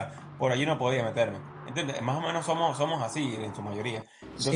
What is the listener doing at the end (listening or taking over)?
taking over